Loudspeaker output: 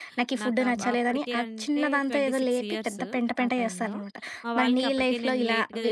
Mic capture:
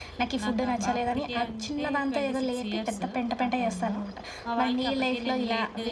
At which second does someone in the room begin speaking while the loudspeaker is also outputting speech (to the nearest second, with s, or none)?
none